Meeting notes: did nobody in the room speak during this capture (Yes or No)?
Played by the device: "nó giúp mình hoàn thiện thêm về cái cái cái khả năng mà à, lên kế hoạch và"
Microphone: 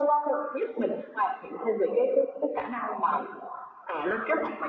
Yes